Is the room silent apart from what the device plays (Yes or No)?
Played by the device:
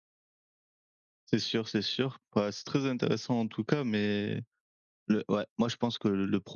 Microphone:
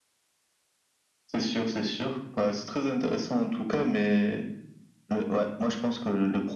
Yes